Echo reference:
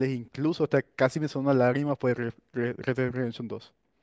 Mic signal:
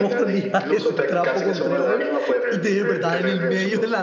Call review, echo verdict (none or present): present